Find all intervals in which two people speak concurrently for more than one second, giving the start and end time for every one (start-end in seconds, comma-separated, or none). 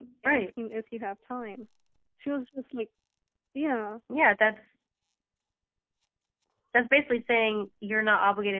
none